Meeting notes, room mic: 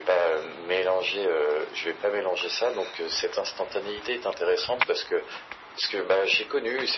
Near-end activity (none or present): none